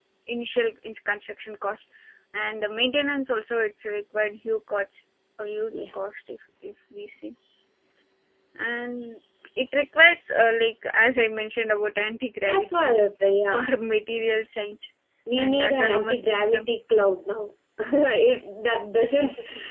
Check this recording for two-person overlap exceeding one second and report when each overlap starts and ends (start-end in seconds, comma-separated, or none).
15.4-16.7